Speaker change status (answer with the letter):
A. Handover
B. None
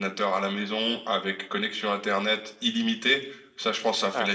B